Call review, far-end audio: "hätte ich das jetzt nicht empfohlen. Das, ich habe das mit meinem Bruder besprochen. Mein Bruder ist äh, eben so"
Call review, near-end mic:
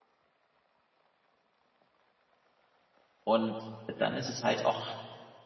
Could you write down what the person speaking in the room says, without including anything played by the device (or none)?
Und dann ist es halt auch,